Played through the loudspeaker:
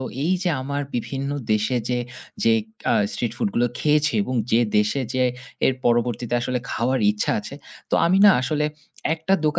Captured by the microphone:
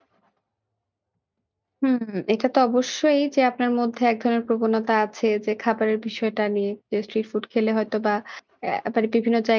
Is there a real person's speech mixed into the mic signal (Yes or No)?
Yes